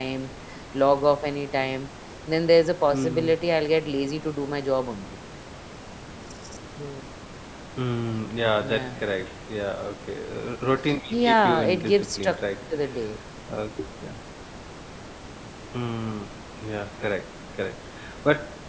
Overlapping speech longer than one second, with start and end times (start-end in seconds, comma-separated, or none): 11.1-12.4